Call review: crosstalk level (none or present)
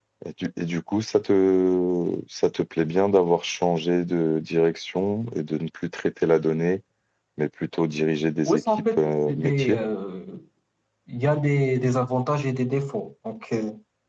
present